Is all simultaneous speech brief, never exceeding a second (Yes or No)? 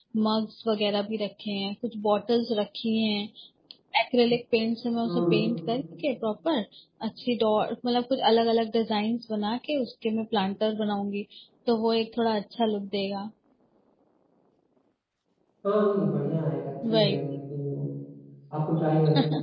Yes